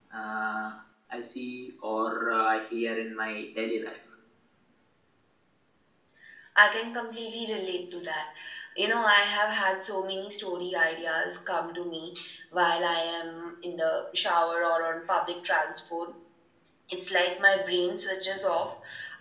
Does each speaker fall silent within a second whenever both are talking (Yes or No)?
Yes